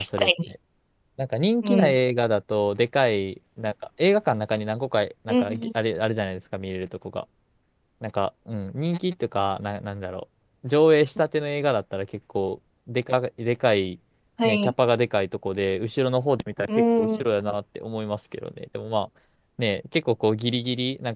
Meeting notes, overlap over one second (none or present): none